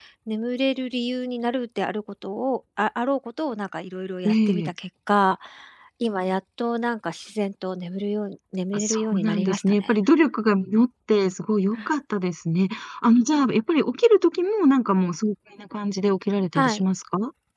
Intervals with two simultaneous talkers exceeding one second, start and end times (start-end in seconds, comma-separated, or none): 8.7-9.9